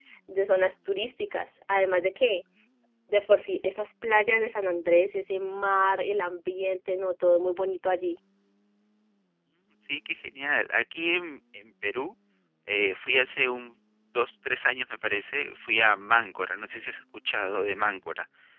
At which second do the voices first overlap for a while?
none

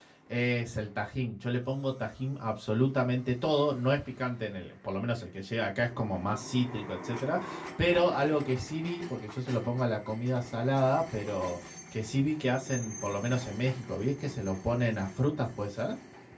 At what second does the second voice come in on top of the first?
none

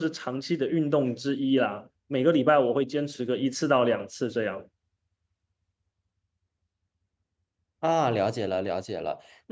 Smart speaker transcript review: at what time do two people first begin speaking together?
none

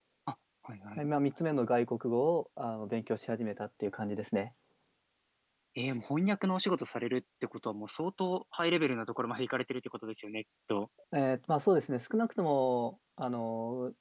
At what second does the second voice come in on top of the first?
none

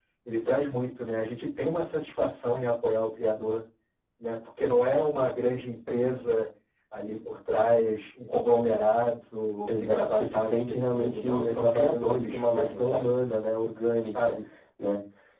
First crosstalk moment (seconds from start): 9.7 s

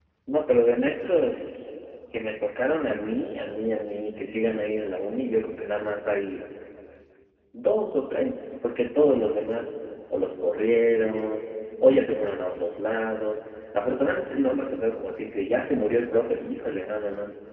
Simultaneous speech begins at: none

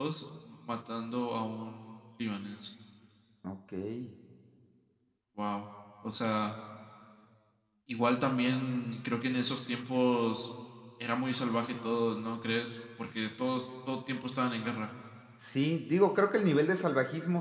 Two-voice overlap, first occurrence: none

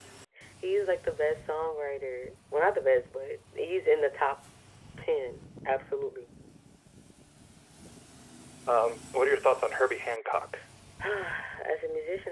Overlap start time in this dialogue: none

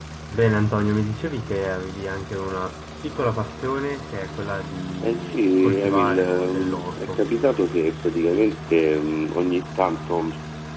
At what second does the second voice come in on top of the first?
5.0 s

